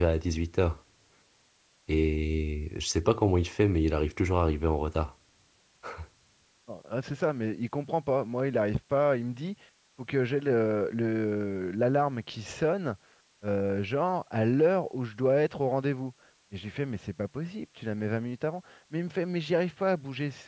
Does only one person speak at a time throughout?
Yes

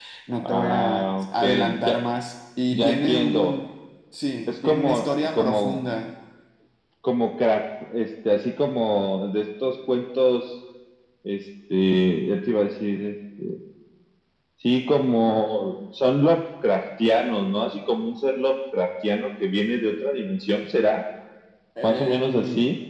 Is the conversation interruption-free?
No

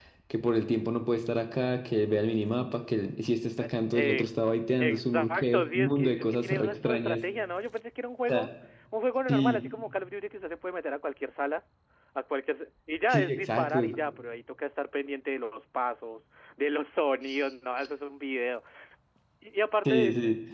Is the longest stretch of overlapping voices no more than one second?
No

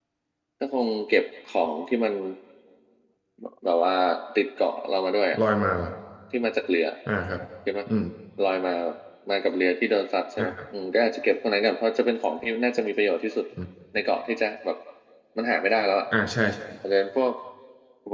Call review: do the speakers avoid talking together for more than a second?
Yes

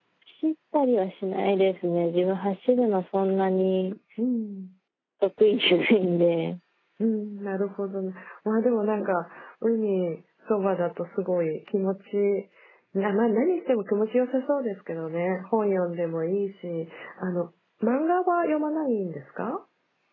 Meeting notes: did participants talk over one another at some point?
No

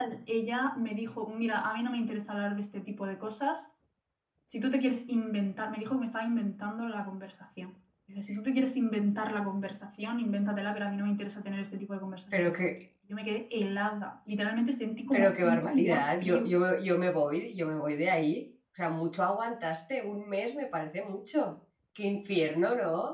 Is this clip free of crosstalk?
No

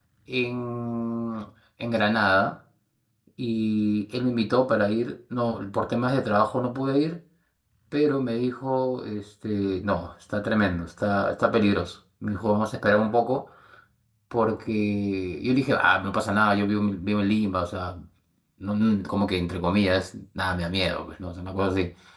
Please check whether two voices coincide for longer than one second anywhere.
No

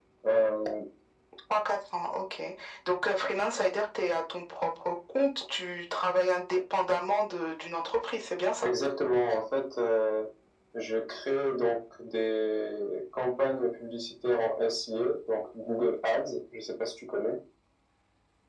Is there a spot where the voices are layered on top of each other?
No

